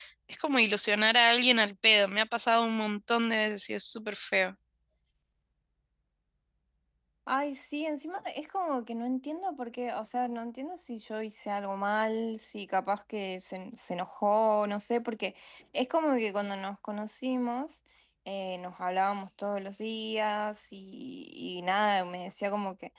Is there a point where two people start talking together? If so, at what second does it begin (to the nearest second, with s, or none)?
none